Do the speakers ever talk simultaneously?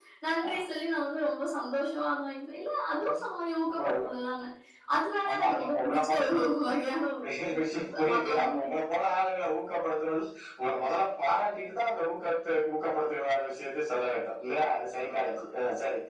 Yes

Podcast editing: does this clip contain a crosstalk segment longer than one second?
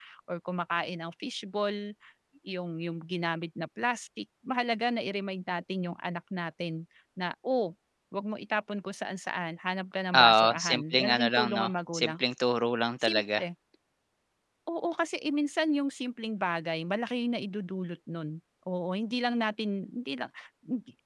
Yes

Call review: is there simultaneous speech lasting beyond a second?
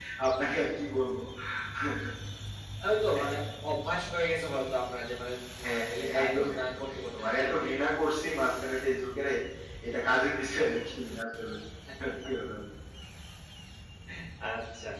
Yes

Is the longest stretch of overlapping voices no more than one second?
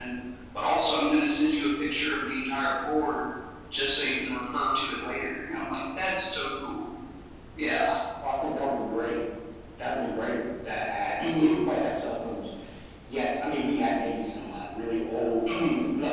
Yes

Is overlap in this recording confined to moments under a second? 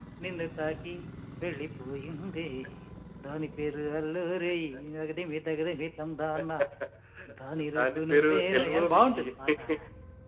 No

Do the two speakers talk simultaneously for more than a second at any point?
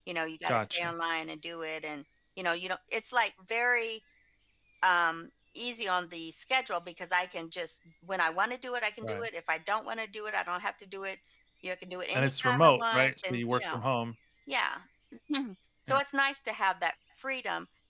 Yes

